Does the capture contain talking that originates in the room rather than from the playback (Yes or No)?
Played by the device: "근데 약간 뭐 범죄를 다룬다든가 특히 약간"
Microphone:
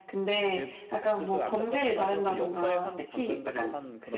Yes